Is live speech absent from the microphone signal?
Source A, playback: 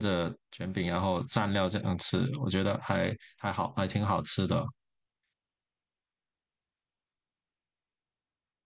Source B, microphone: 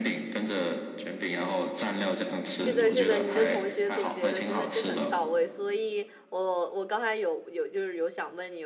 No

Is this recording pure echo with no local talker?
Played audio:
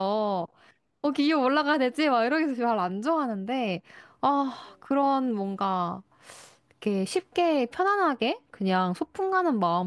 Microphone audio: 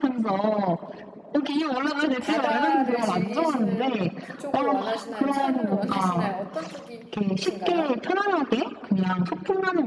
No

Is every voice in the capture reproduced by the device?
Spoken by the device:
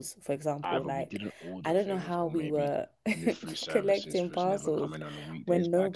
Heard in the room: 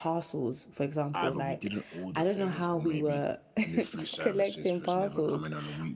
Yes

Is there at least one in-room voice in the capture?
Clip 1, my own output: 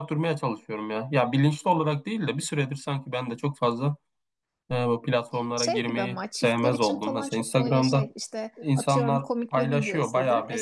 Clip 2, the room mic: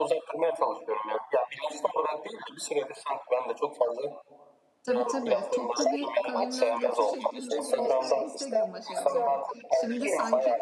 Yes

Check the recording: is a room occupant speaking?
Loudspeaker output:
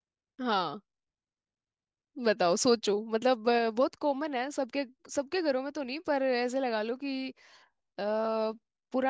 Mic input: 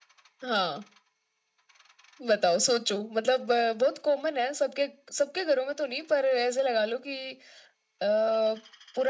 No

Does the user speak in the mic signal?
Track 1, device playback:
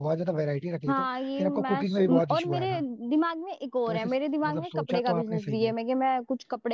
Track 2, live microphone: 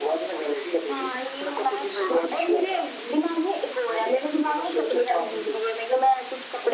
No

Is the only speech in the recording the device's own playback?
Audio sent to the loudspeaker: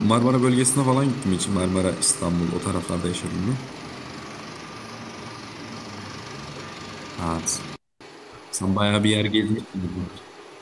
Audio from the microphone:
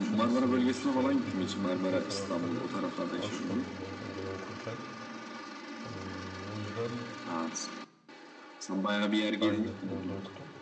No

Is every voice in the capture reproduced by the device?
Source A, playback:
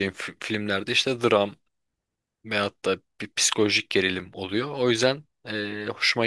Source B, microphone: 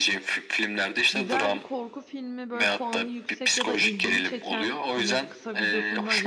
No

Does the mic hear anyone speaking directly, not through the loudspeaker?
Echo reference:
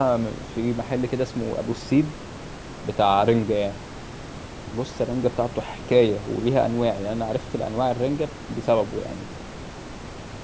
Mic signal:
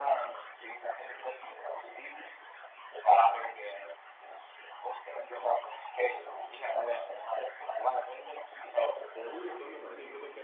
Yes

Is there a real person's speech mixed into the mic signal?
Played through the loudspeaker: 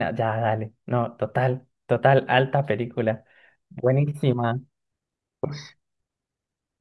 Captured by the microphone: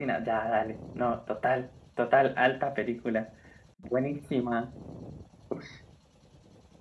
No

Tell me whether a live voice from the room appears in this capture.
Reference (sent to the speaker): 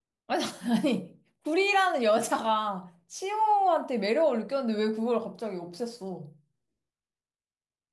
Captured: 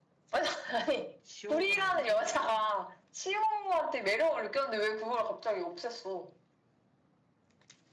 Yes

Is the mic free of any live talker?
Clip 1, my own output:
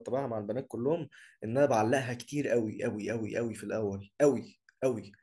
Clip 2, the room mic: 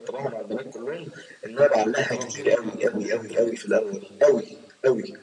No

